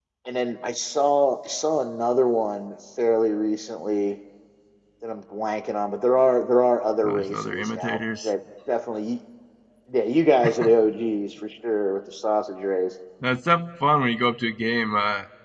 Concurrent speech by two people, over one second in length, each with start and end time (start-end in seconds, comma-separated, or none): 7.0-8.3